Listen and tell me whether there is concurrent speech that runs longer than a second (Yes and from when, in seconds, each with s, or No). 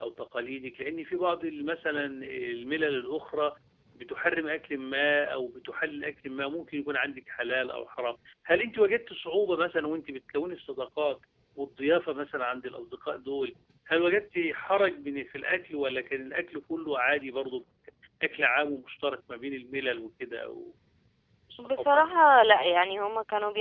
No